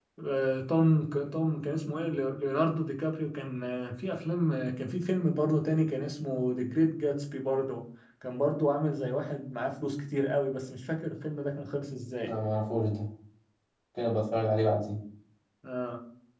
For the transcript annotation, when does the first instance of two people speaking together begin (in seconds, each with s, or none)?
none